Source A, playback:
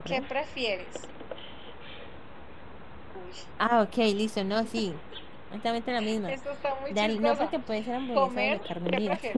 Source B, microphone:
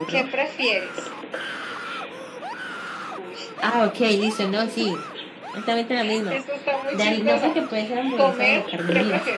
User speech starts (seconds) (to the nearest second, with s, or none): none